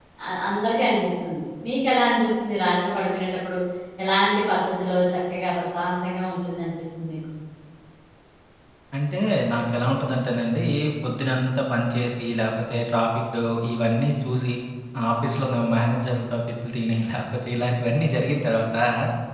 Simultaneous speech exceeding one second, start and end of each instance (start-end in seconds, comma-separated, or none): none